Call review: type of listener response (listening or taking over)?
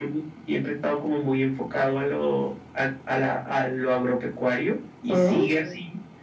listening